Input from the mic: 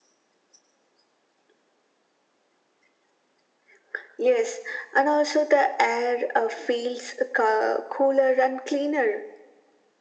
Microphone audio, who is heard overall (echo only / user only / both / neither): echo only